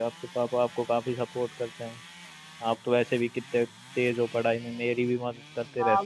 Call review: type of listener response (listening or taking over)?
taking over